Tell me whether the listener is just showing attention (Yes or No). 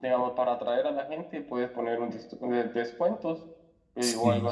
Yes